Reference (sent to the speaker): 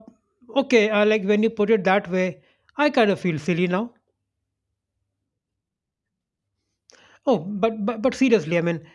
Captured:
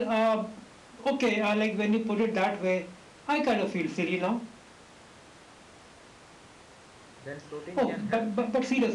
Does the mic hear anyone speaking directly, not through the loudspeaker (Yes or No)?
Yes